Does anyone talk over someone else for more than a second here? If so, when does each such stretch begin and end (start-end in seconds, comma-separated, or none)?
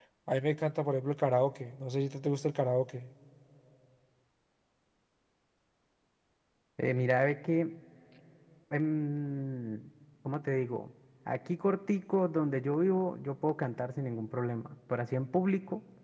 none